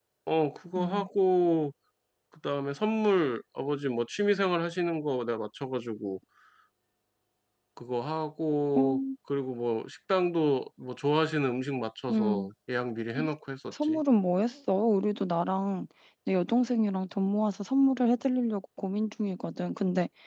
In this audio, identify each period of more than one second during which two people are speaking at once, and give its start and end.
none

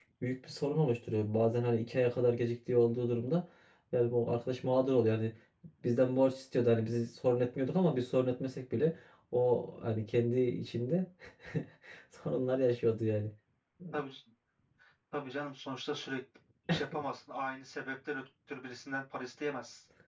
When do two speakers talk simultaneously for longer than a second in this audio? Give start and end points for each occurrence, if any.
none

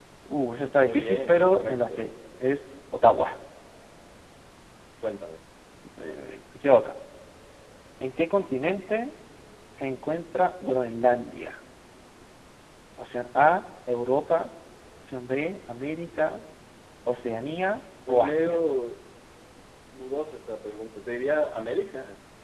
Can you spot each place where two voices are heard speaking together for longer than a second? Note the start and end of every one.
0.8-2.1

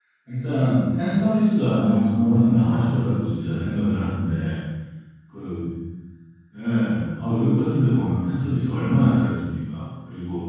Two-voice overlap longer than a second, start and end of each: 1.8-3.1

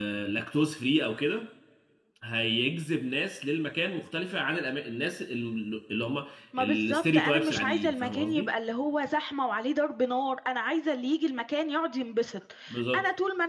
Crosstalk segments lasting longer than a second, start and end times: 6.6-8.5

